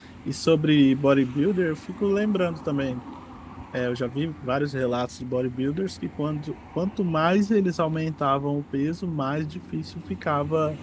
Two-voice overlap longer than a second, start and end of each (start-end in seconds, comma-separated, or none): none